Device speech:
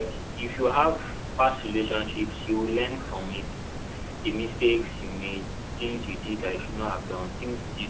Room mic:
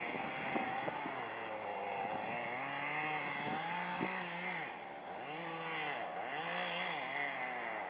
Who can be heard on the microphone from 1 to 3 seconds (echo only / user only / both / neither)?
neither